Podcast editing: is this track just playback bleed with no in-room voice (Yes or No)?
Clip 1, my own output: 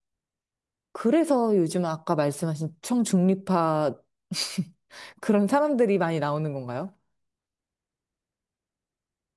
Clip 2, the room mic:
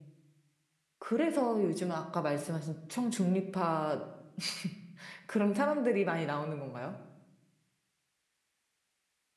Yes